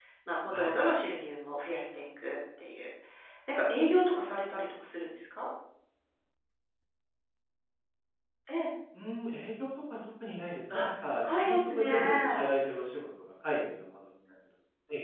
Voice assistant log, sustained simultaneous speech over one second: present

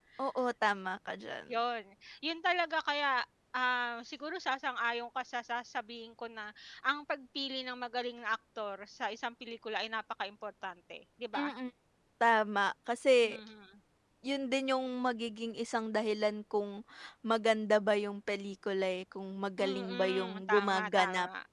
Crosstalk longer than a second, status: present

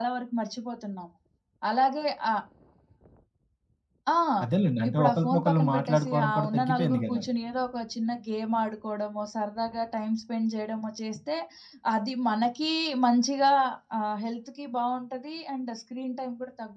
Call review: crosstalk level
present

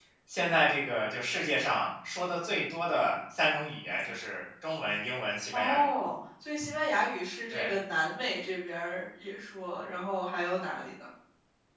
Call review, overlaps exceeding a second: none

